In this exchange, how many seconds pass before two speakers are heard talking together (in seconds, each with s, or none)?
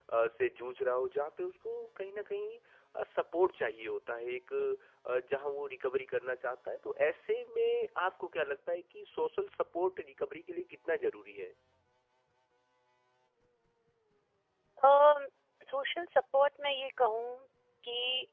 none